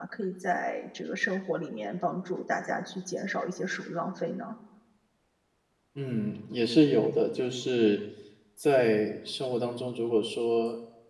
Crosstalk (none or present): none